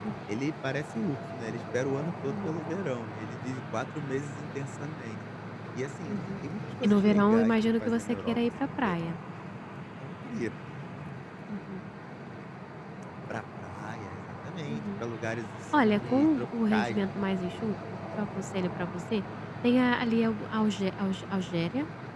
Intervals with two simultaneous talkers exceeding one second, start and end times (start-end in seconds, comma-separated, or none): 6.8-9.2, 15.7-17.7